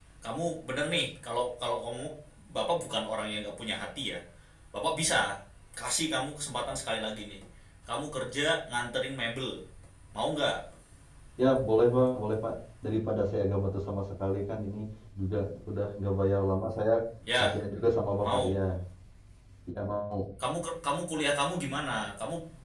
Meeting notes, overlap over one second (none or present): none